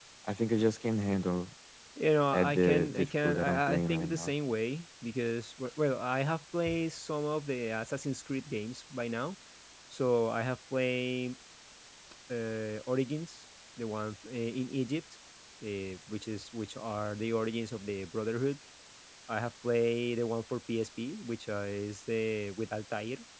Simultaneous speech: Yes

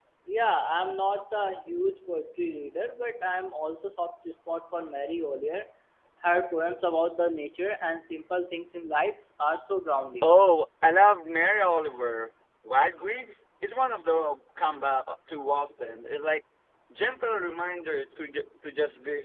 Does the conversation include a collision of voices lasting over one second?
No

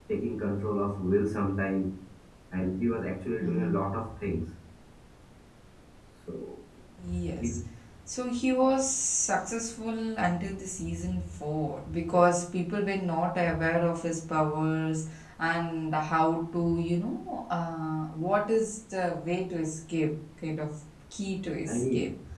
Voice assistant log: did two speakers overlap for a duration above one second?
No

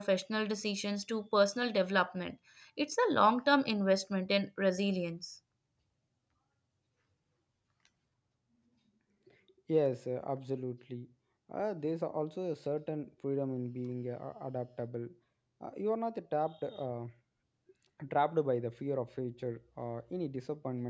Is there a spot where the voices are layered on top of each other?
No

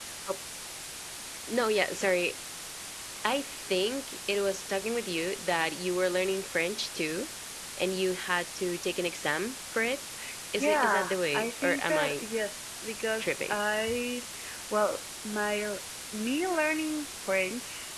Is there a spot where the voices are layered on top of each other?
Yes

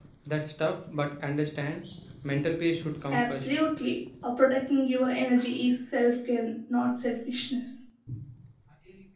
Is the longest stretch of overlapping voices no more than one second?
Yes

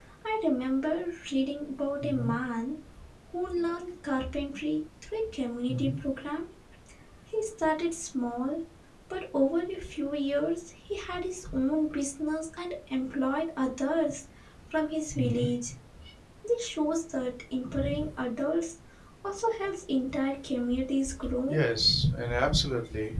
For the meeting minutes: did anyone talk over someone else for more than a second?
No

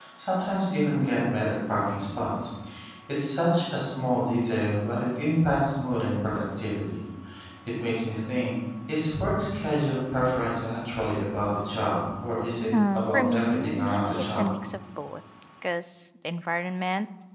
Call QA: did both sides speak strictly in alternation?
No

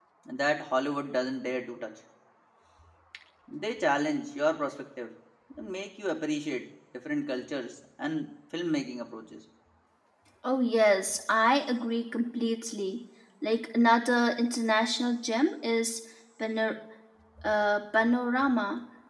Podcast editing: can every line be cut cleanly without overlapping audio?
Yes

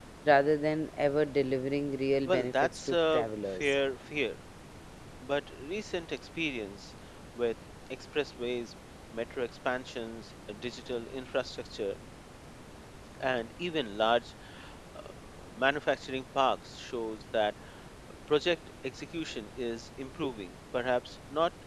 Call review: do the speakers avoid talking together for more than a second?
No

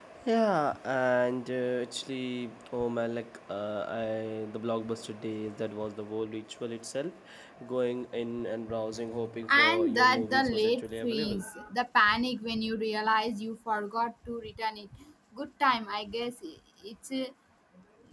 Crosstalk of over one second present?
Yes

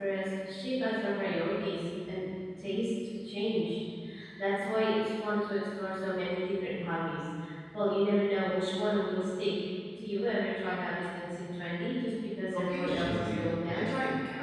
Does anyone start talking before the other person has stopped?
Yes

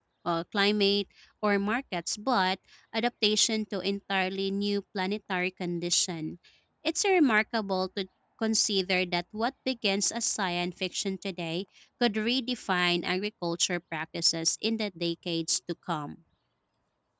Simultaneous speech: No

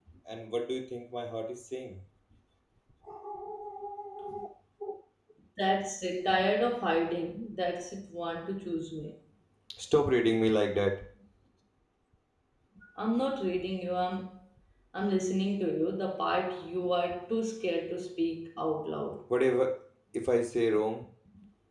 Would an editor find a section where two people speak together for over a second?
No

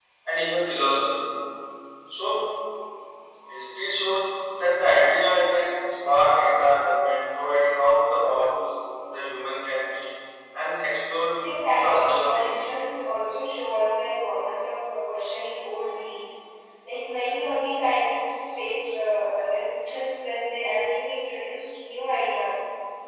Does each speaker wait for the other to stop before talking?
No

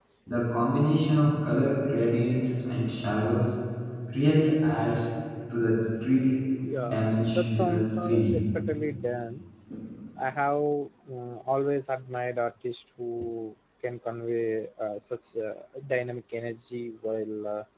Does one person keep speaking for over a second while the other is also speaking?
Yes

